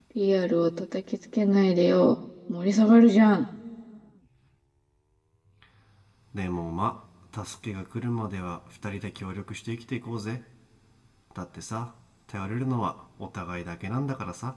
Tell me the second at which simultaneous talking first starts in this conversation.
none

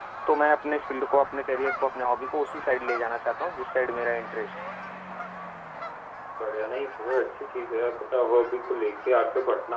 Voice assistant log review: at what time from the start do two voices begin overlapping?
none

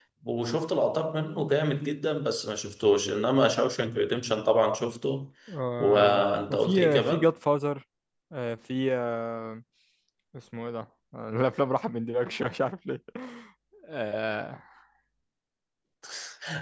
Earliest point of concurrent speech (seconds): 5.8 s

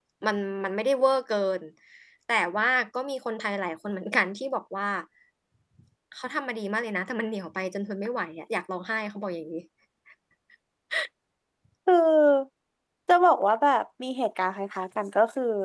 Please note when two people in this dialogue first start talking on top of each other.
none

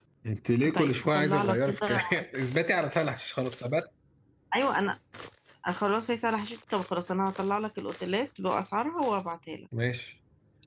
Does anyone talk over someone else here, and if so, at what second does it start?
0.8 s

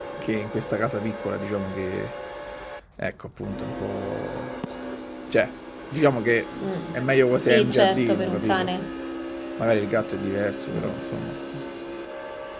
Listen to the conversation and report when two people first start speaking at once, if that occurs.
7.4 s

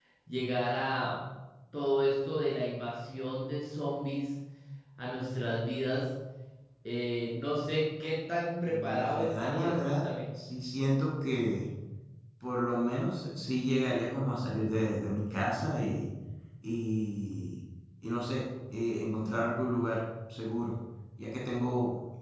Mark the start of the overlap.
8.7 s

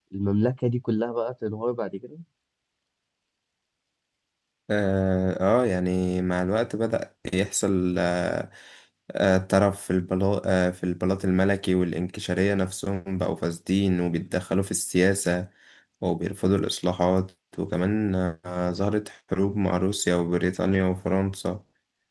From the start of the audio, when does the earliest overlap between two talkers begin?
none

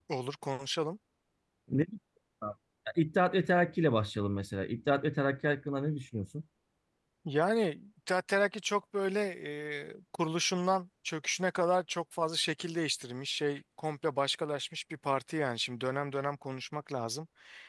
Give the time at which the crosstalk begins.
none

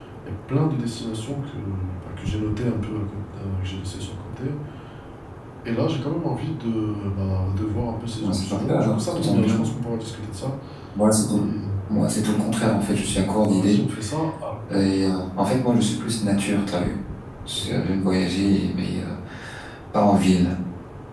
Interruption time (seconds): 8.2 s

